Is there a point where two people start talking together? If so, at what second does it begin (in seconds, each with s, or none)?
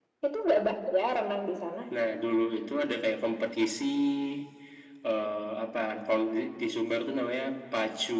none